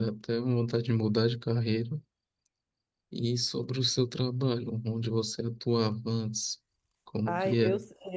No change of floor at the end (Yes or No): No